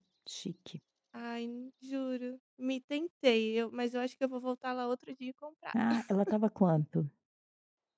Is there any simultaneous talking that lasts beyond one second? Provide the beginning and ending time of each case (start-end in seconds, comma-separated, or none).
none